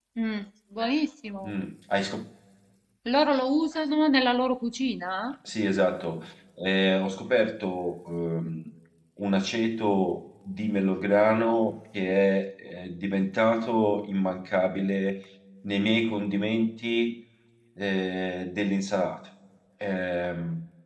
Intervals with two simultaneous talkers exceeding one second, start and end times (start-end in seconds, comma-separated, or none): none